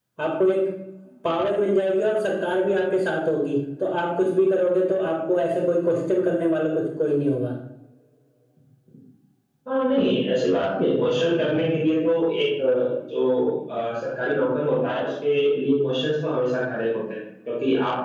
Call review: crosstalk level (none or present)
none